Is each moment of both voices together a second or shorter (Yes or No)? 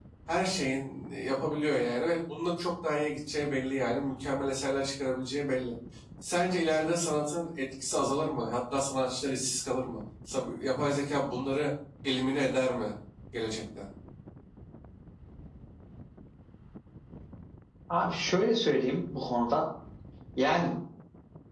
Yes